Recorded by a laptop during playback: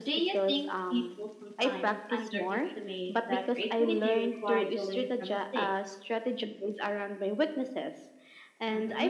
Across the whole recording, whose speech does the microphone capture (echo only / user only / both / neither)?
both